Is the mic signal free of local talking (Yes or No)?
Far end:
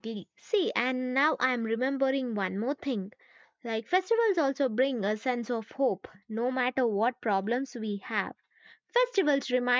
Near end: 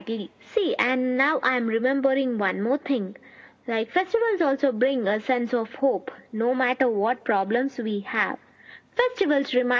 Yes